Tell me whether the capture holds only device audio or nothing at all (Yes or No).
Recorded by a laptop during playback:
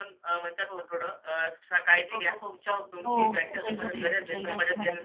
No